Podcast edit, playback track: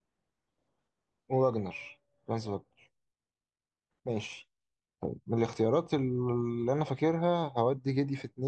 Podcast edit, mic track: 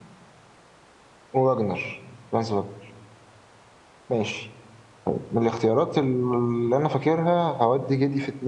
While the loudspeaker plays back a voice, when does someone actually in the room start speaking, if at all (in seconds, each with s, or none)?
none